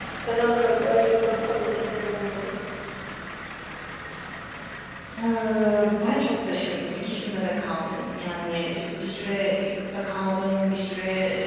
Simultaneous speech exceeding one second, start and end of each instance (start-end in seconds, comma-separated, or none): none